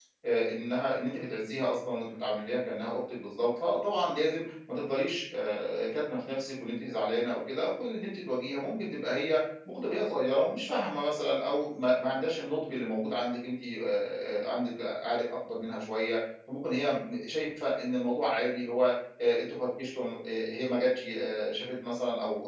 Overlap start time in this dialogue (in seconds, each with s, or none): none